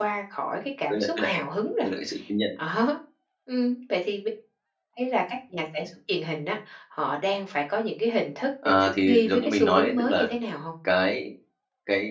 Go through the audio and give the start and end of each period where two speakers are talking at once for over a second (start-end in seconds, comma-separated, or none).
8.7-10.3